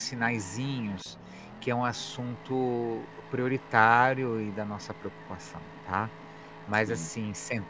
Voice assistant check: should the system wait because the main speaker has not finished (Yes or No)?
Yes